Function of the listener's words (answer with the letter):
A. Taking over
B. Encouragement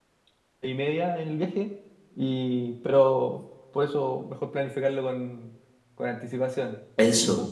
B